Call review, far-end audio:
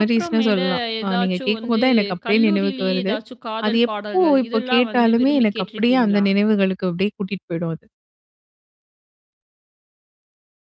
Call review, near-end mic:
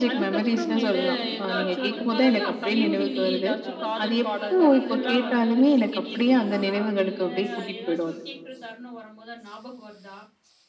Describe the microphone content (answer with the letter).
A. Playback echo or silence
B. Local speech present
B